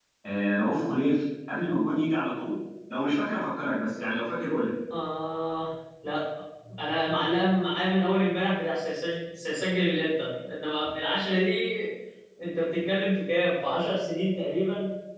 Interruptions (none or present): none